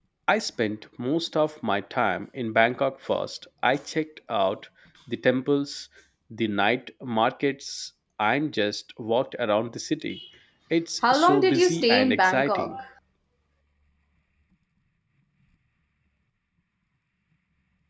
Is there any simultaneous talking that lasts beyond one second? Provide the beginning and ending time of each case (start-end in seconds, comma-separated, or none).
11.1-12.8